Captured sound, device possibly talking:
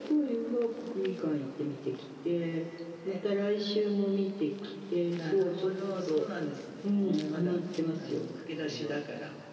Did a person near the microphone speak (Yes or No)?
No